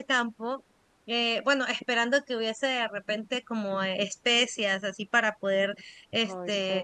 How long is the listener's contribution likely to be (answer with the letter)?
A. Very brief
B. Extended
A